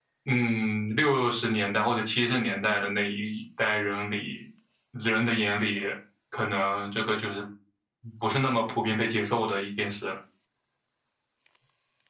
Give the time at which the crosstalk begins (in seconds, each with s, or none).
none